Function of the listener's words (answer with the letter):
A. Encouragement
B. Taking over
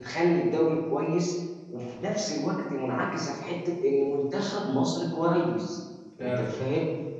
A